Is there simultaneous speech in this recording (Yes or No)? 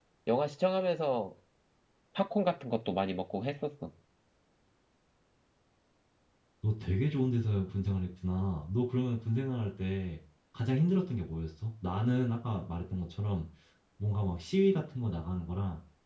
No